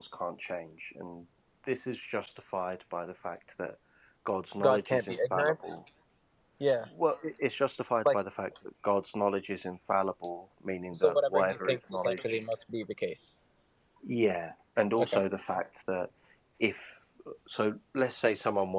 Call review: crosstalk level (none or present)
present